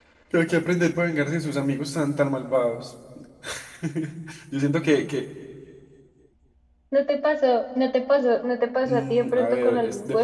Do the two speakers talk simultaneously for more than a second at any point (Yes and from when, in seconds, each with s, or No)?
Yes, from 8.8 s